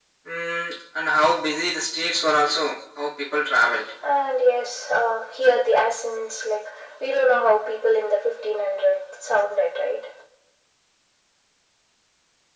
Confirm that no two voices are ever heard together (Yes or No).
Yes